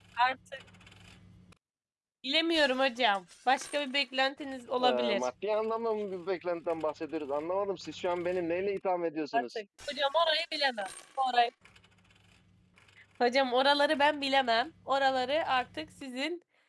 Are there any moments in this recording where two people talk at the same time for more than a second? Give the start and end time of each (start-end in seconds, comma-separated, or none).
none